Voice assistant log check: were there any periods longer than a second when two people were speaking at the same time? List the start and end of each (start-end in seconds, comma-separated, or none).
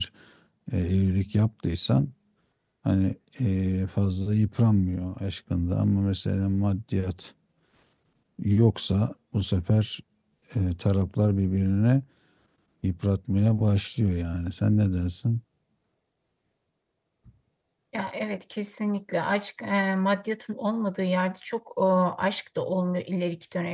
none